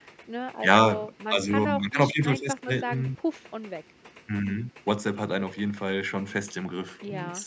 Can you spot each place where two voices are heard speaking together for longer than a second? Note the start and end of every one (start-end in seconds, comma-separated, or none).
0.6-3.0